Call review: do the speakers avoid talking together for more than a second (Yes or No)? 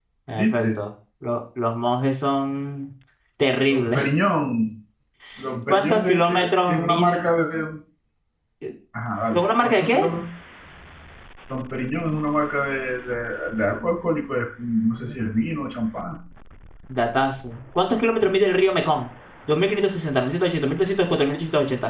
No